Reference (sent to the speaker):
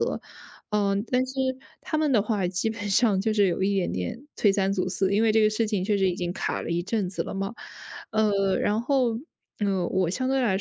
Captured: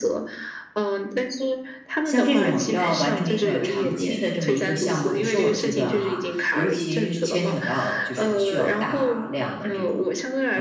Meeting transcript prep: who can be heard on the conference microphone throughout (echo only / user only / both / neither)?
both